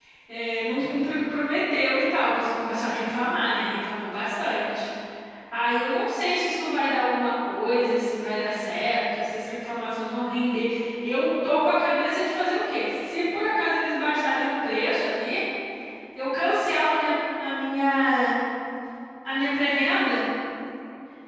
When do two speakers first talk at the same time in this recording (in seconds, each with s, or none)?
none